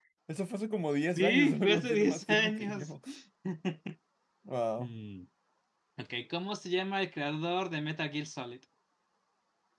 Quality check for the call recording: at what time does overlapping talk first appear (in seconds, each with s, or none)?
1.1 s